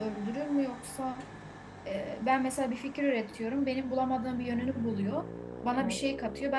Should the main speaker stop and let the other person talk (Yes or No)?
No